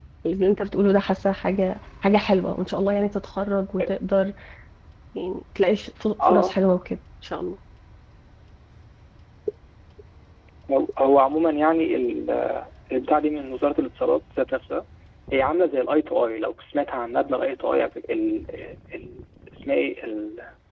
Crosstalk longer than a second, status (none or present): none